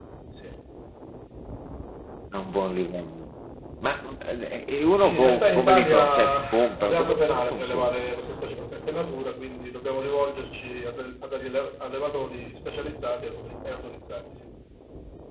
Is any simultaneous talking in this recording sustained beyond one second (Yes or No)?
Yes